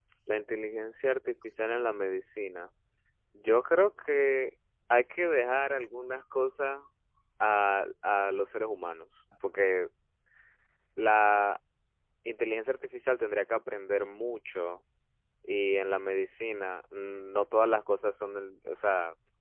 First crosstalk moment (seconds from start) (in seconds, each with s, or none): none